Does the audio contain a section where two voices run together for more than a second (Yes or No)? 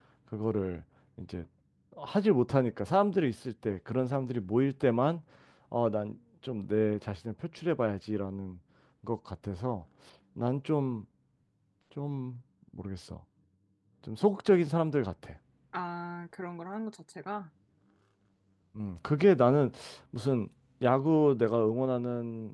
No